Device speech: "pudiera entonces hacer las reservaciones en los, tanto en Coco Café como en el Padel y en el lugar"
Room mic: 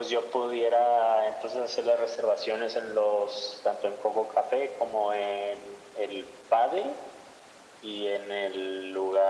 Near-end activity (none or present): none